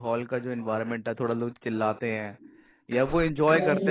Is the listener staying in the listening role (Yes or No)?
Yes